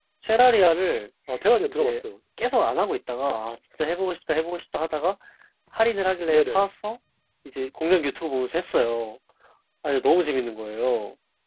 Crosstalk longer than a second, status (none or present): none